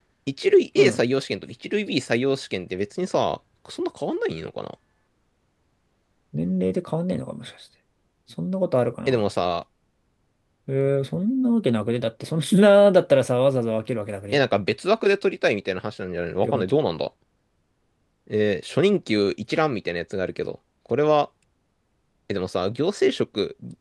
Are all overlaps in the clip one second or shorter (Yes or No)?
Yes